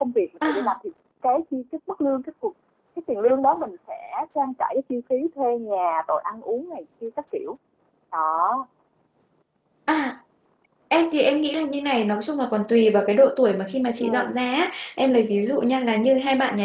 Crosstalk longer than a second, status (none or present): none